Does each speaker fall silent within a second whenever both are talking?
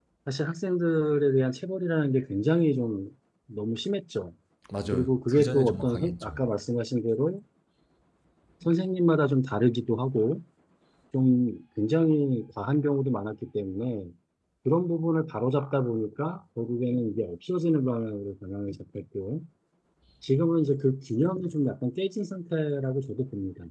No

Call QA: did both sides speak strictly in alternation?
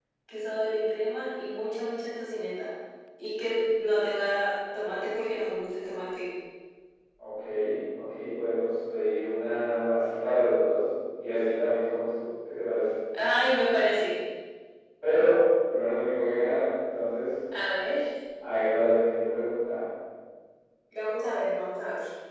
Yes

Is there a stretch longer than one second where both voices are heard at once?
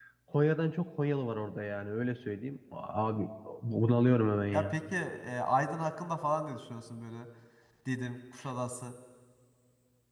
No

